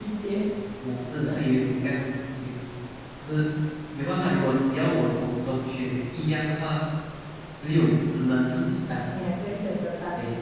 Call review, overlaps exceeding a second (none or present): none